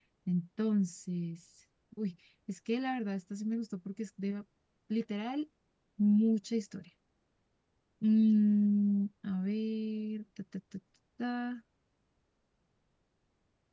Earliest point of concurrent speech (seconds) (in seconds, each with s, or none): none